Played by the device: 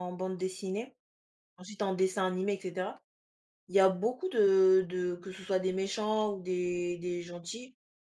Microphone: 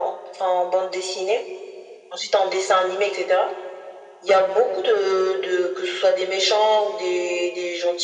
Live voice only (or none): none